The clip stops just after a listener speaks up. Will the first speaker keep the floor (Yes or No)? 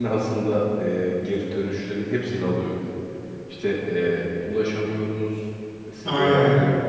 Yes